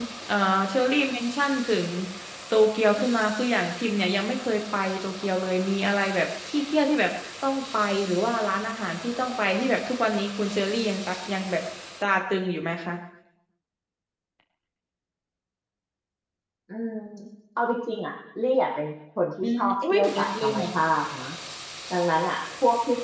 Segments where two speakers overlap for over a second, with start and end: 19.4-20.6

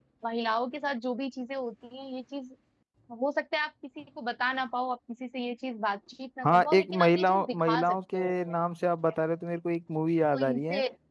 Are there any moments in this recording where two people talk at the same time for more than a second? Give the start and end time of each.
6.4-8.6

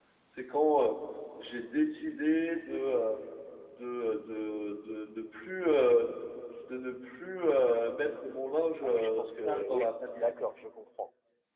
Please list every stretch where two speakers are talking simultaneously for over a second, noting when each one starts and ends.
8.8-10.3

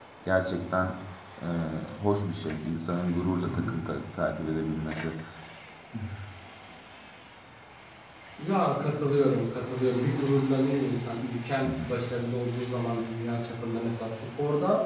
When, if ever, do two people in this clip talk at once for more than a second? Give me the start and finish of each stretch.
none

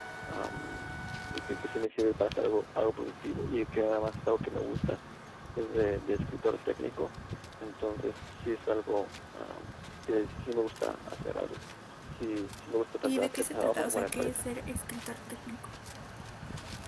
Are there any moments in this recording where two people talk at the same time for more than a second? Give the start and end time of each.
13.0-14.4

